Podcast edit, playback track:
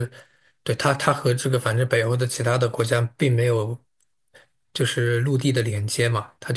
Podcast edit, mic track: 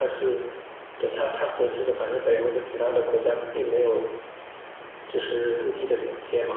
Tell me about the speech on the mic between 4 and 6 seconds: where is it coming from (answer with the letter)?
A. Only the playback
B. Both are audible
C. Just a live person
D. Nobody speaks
A